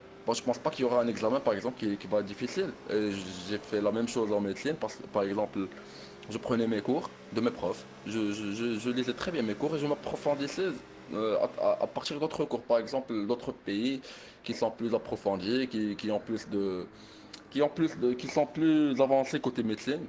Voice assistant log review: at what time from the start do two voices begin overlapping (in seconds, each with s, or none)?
none